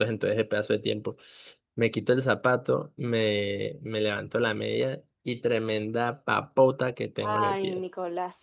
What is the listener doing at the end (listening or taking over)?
taking over